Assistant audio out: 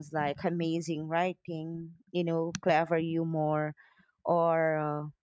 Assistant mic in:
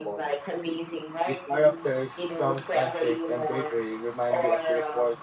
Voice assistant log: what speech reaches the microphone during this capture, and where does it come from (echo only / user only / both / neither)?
both